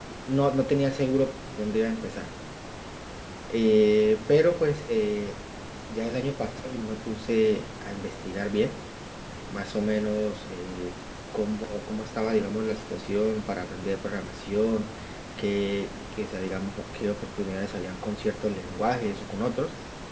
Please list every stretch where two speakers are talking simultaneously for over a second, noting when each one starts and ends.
none

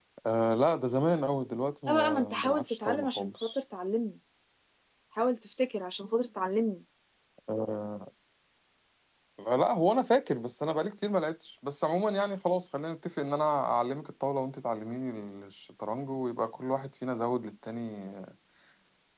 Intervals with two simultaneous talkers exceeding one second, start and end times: 1.9-3.6

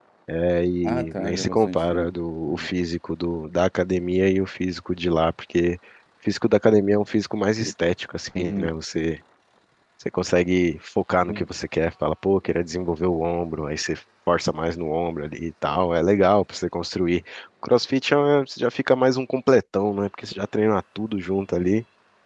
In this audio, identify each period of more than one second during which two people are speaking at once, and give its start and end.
0.8-2.1

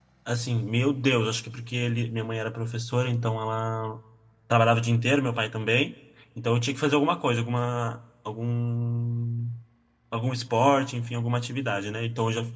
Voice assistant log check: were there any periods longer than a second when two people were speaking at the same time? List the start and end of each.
none

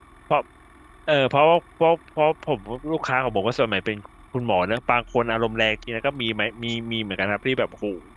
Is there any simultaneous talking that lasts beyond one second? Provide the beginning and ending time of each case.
none

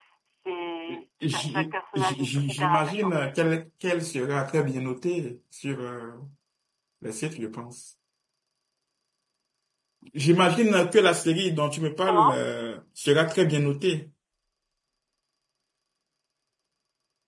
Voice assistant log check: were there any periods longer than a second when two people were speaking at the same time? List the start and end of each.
0.9-3.1

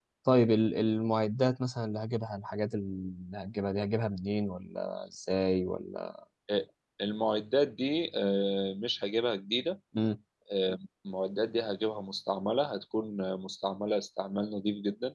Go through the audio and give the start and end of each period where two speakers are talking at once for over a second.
none

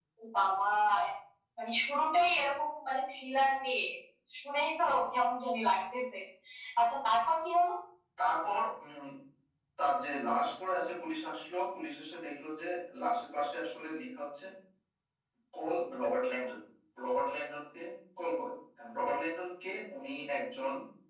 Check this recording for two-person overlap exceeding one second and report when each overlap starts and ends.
none

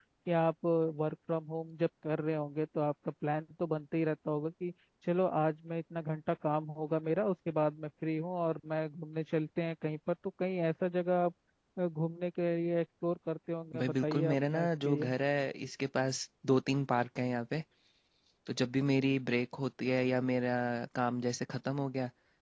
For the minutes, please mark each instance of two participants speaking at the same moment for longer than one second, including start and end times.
13.8-15.1

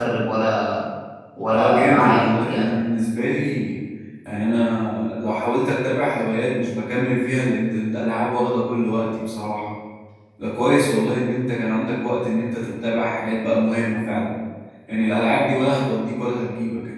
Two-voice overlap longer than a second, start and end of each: 1.5-2.7

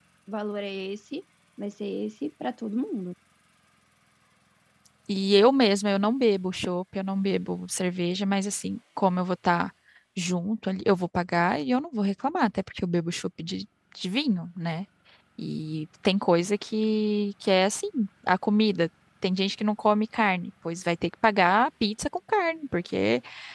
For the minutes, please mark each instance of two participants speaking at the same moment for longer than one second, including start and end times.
none

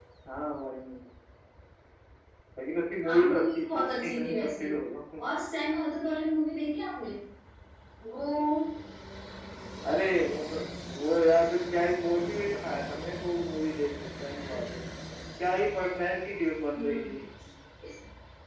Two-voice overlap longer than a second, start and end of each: 3.0-4.7

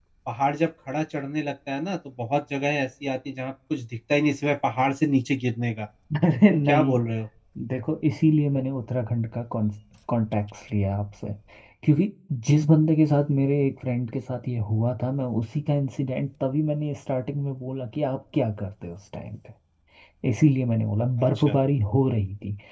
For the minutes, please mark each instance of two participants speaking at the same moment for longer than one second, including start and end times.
none

